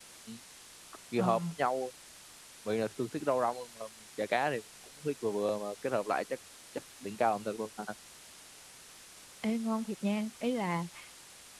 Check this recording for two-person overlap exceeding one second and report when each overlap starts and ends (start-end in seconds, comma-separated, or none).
none